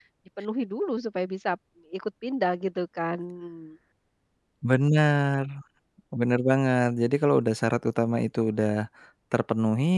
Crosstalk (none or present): none